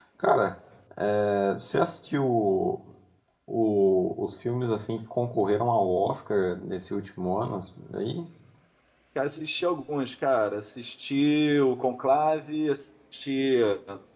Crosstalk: none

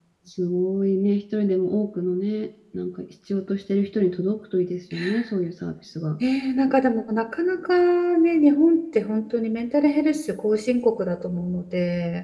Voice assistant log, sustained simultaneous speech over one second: none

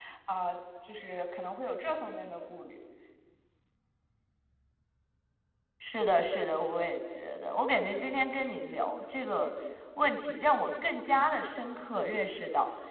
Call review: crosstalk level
none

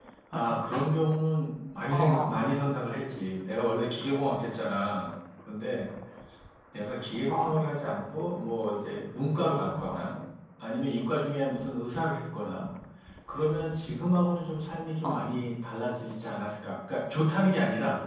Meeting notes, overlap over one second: none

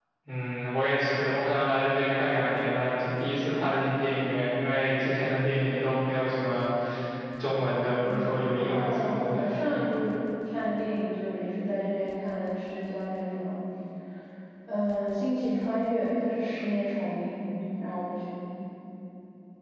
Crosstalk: present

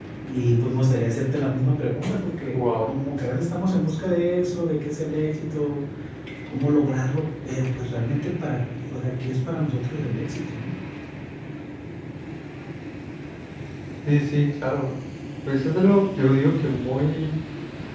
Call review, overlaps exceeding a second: none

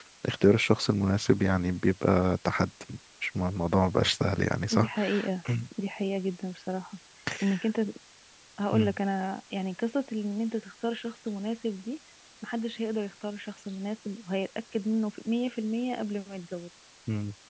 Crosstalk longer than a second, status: none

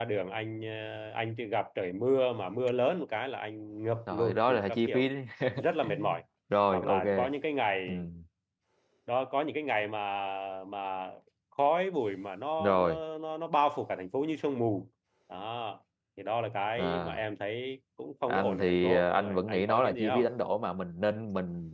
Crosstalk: present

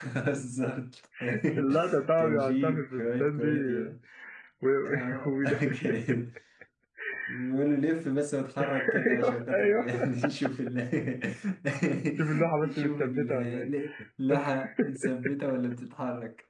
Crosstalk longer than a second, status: present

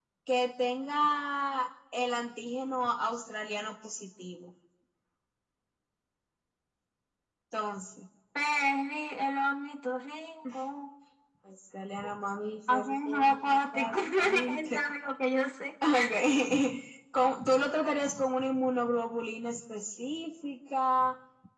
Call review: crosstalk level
present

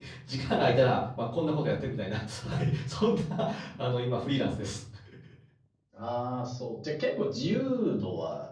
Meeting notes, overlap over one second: none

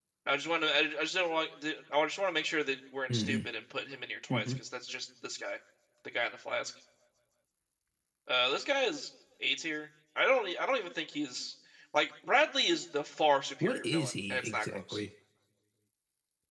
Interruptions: present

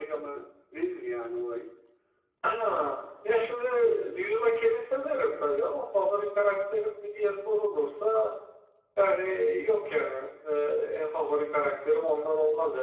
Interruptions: none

